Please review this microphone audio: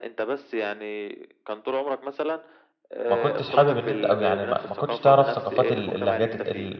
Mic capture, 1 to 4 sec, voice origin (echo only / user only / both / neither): both